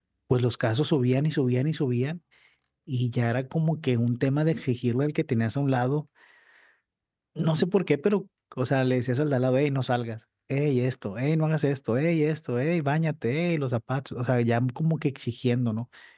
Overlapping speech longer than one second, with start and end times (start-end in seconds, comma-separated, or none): none